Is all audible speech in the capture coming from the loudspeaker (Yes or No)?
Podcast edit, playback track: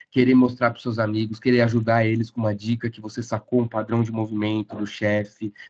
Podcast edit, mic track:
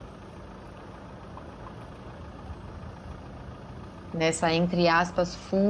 No